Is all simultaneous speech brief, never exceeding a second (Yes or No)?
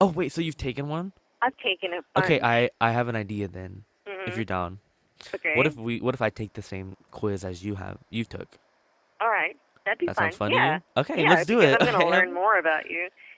No